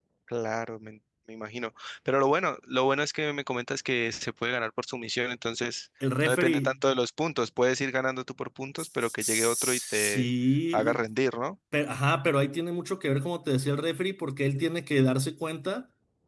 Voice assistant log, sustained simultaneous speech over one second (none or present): present